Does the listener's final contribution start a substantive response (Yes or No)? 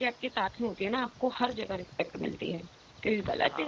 No